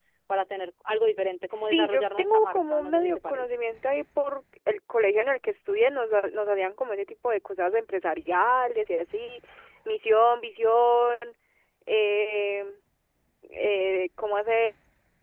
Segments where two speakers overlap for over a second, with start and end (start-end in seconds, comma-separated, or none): 1.6-3.4